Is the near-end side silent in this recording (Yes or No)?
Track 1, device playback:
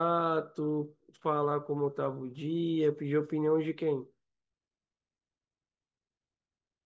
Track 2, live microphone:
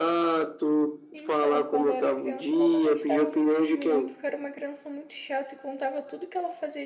No